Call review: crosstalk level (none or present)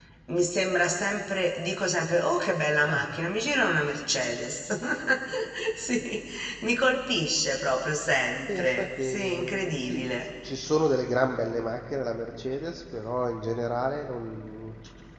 present